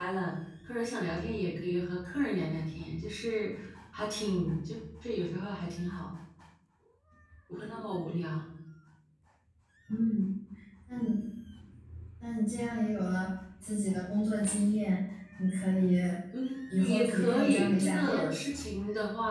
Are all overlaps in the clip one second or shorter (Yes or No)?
No